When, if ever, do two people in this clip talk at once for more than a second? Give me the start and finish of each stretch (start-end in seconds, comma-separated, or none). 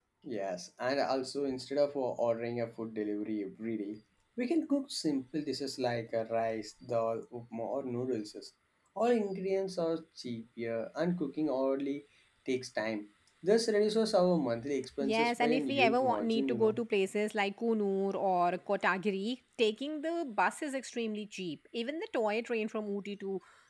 15.0-16.8